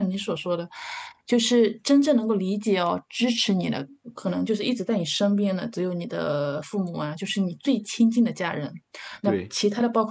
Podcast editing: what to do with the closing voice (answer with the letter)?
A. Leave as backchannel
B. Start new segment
A